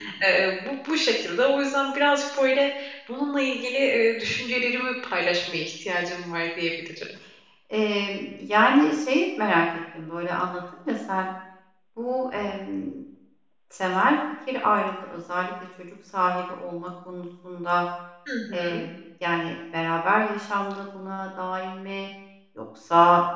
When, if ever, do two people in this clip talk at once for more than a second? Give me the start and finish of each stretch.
none

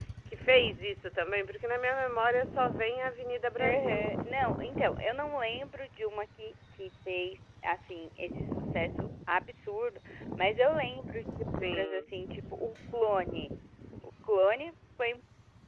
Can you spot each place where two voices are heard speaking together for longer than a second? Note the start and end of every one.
none

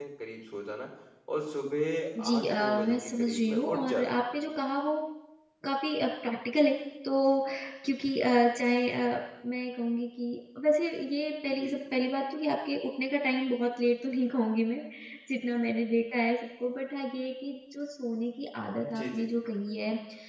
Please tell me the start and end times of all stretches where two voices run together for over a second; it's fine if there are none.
2.2-4.1

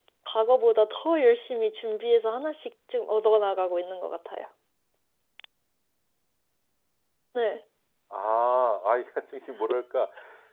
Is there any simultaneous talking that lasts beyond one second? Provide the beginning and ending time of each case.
none

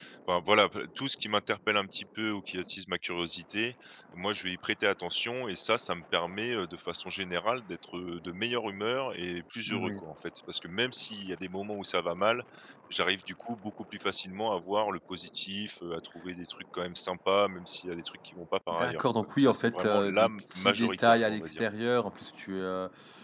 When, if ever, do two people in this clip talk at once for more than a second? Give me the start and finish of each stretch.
18.7-21.6

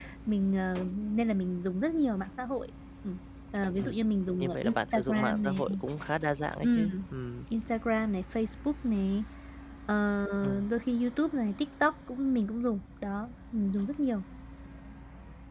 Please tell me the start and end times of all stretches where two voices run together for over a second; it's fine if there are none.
4.4-5.6

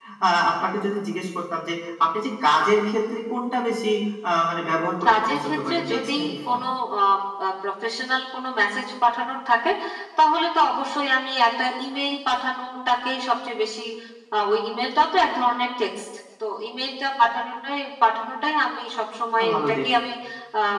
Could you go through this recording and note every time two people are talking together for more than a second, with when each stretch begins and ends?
5.0-6.6

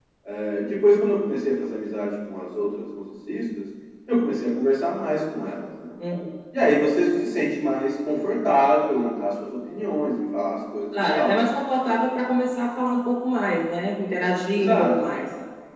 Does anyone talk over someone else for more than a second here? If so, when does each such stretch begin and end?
none

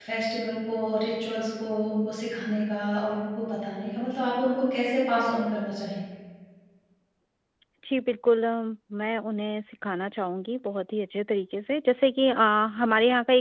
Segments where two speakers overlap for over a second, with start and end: none

